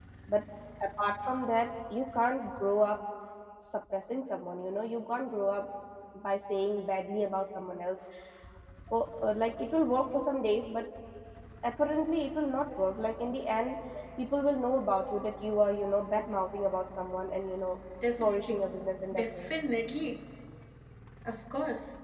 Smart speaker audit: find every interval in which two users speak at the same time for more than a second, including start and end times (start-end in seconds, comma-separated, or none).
none